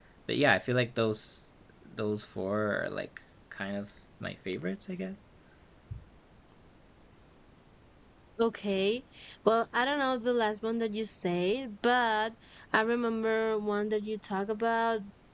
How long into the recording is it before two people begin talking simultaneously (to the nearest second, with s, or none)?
none